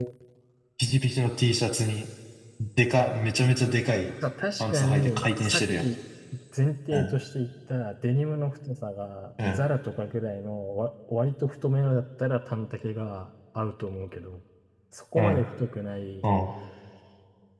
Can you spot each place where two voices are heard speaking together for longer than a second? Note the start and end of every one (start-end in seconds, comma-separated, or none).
4.6-5.8